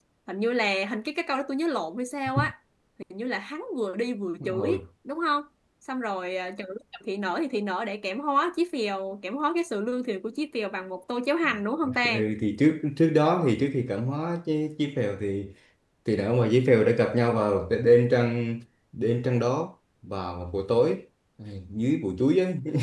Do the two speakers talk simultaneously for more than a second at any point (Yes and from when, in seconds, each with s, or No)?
No